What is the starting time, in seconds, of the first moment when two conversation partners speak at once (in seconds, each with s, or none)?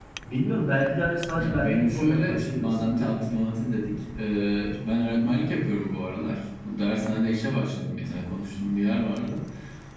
1.4 s